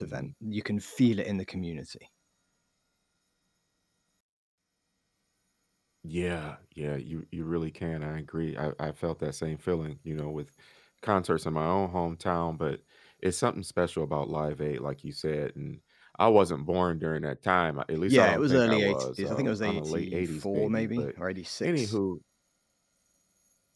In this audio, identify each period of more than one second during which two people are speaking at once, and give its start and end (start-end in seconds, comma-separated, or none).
18.1-21.1